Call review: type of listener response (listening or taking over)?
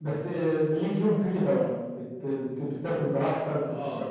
taking over